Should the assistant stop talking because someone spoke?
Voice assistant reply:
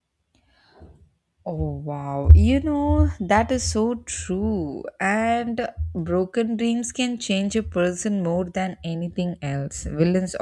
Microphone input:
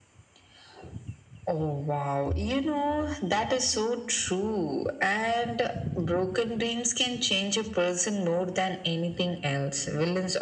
No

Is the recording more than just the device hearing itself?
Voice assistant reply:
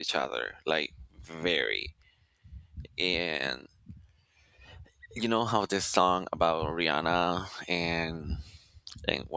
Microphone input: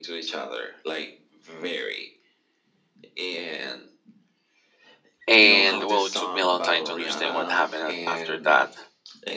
Yes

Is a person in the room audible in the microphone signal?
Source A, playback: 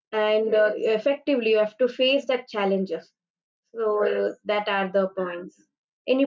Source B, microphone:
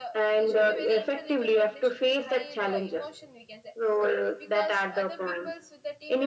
Yes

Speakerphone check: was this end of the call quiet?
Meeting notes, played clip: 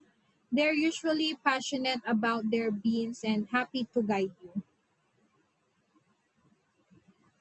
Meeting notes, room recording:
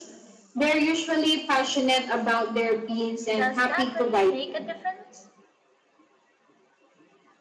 No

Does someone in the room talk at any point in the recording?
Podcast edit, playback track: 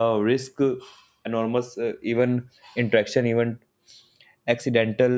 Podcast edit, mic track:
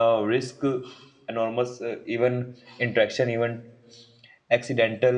No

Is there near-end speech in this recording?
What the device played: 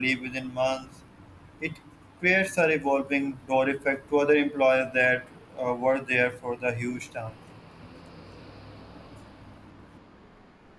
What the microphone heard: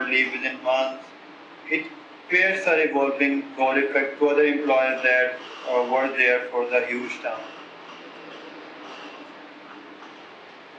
No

